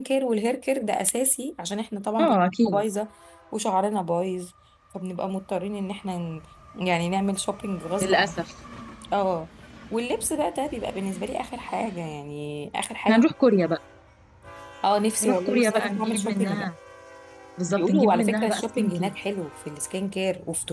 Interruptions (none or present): present